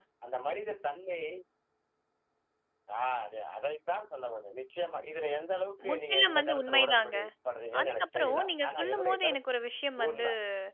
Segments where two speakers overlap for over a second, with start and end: 5.9-7.2, 7.8-9.4

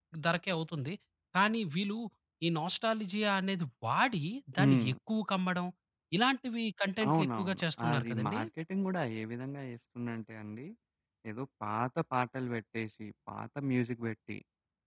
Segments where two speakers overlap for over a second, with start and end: 7.1-8.4

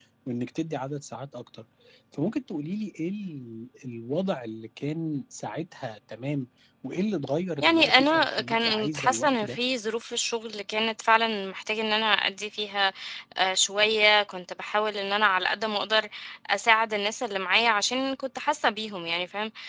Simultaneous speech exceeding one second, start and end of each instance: 7.6-9.6

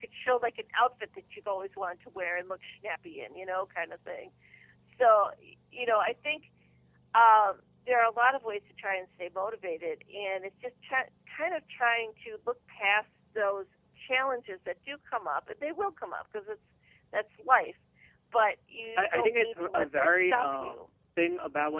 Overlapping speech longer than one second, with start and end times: 19.0-20.8

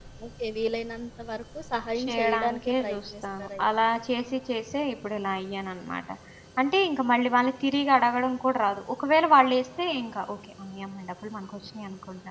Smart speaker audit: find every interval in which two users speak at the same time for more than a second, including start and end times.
2.0-3.6

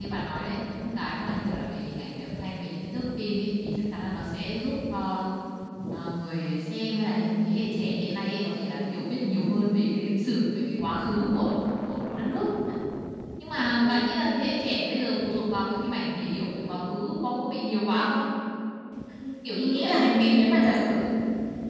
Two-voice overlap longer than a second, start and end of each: 19.6-21.0

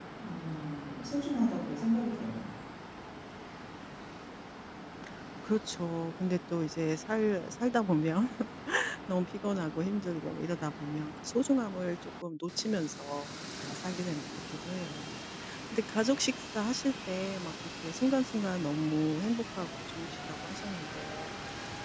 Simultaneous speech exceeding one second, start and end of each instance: none

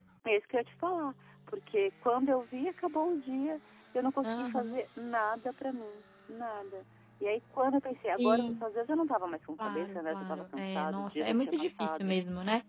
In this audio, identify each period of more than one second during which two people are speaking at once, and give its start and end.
9.6-12.2

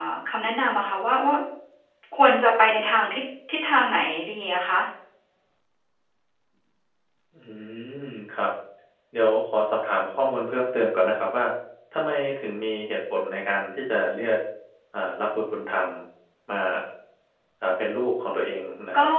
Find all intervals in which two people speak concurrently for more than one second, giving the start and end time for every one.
none

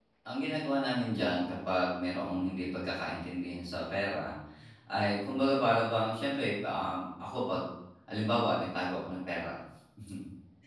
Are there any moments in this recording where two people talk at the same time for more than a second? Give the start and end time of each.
none

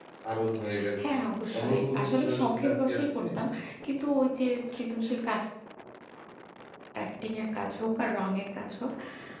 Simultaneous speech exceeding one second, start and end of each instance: 1.6-3.2

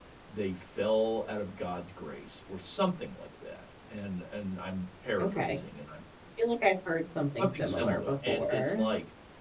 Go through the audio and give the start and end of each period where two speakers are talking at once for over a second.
7.4-8.8

